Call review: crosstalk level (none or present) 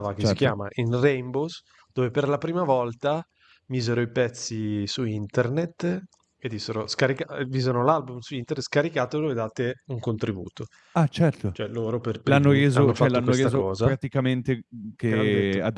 present